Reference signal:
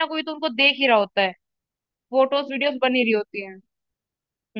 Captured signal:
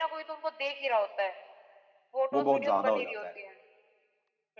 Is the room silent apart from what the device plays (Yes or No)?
No